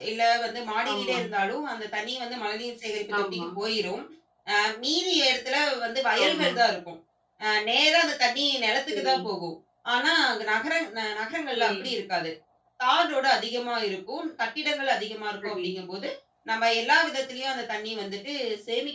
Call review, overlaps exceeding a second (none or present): none